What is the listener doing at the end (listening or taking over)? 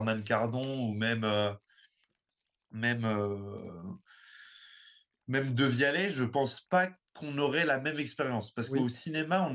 listening